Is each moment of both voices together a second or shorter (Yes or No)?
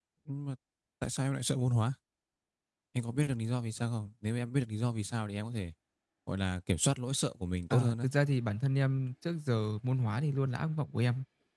Yes